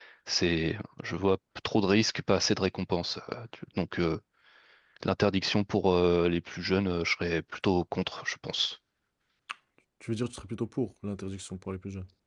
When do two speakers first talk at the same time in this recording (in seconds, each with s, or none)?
none